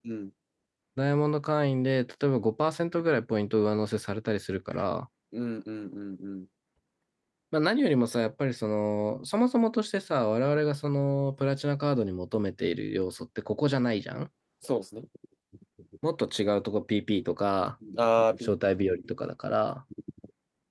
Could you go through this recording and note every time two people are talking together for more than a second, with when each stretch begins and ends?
none

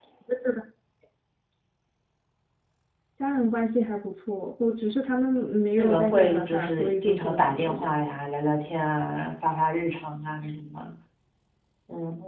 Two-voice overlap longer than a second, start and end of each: 5.8-7.9

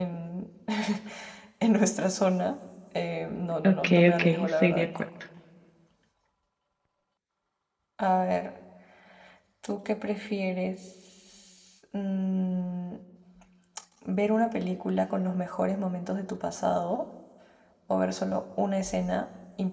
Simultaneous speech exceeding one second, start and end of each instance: 3.6-4.9

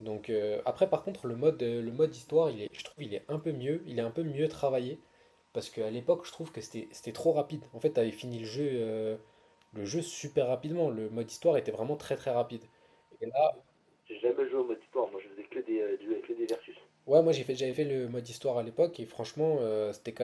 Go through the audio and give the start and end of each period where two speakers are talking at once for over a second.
none

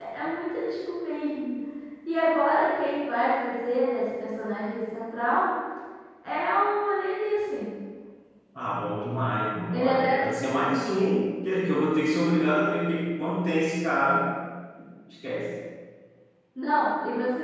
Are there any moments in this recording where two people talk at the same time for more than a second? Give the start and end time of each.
none

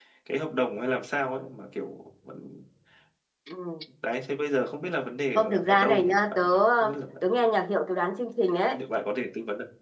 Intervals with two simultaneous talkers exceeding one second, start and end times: 5.3-7.0

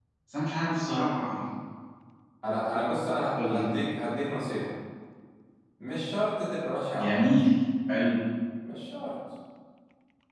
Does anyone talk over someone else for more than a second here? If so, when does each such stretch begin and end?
none

